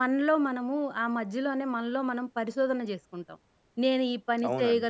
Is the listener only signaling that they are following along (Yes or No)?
Yes